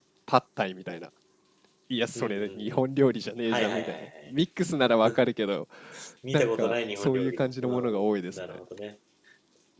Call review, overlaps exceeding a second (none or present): present